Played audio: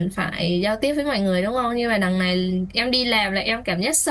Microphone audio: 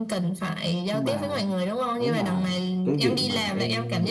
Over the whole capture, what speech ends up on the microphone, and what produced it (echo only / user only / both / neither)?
both